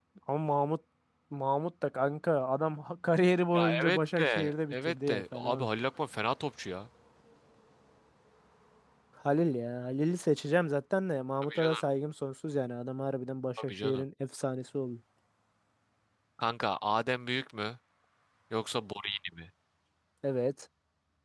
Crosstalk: present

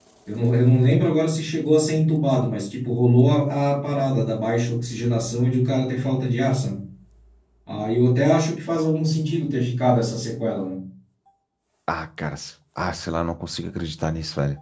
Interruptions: none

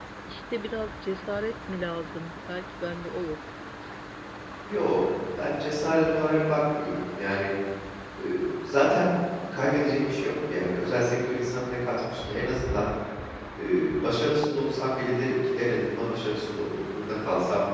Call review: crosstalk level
none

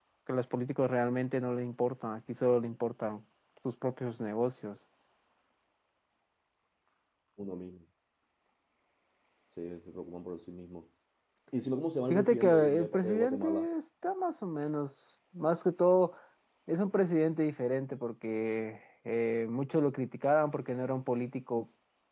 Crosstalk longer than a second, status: present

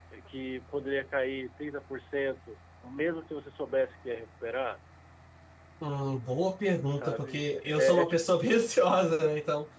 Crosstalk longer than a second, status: present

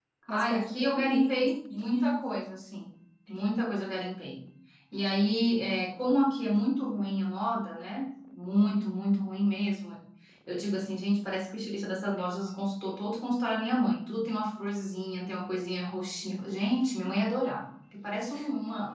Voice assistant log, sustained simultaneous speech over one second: present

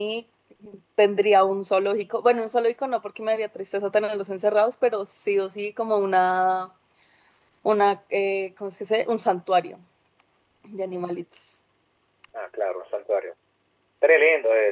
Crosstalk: none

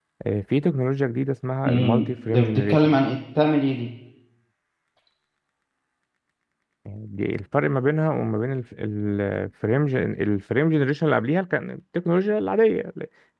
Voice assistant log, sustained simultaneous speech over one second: present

